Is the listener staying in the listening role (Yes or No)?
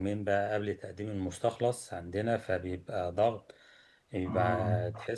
Yes